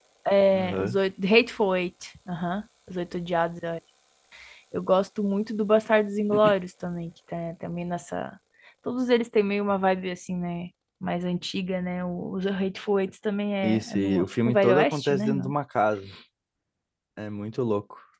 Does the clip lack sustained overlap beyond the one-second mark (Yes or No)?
No